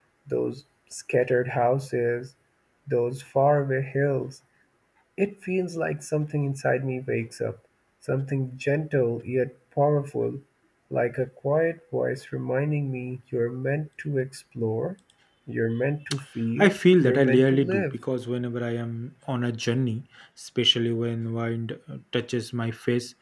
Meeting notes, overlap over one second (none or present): present